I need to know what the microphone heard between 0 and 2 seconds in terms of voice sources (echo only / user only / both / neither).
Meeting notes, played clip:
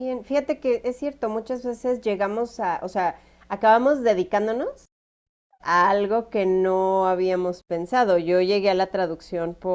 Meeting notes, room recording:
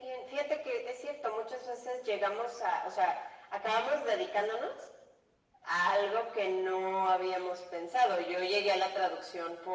echo only